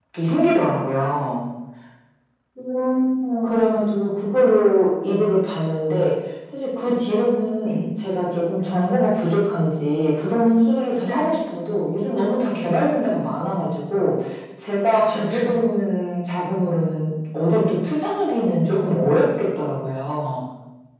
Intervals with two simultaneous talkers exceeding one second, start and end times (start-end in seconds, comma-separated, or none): none